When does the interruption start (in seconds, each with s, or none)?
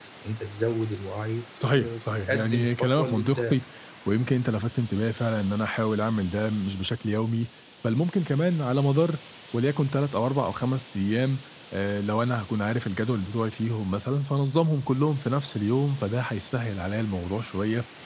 1.6 s